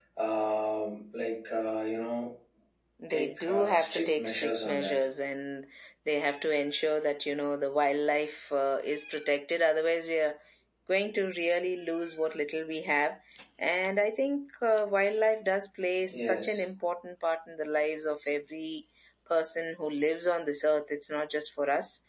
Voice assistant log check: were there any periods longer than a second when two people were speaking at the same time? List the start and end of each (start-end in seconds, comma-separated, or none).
3.1-5.0